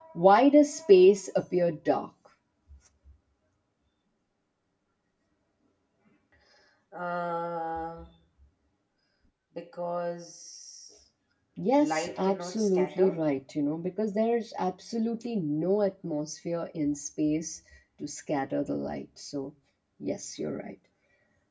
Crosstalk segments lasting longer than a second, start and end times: 11.8-13.2

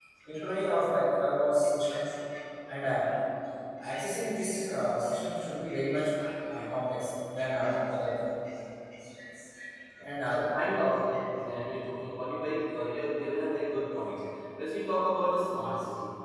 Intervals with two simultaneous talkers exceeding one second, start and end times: none

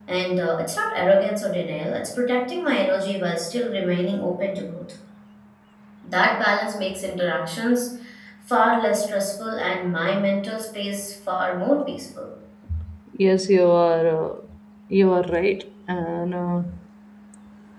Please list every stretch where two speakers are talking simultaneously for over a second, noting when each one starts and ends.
none

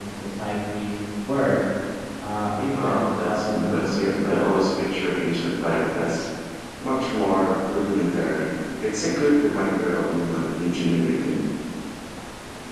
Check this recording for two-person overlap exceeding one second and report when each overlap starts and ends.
2.7-4.6

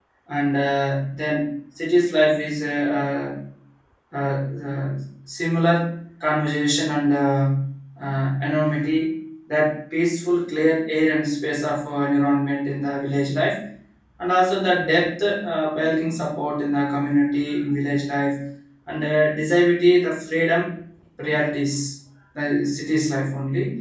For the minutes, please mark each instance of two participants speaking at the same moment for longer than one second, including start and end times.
none

